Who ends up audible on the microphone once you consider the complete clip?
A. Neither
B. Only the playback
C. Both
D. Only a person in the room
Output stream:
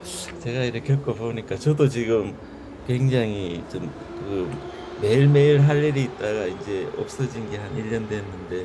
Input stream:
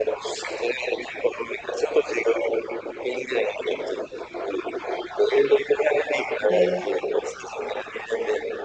C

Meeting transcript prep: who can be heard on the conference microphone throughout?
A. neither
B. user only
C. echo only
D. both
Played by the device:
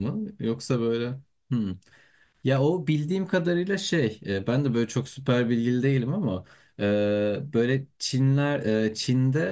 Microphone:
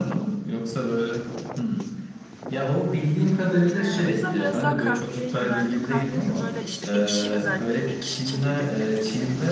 D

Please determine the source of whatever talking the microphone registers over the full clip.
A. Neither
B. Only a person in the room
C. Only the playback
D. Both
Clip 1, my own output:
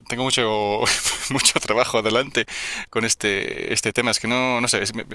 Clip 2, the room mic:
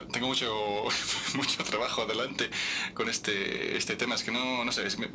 C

